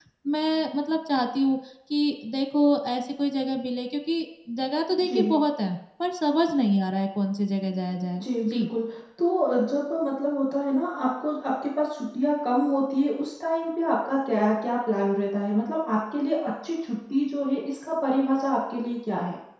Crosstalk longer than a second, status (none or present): none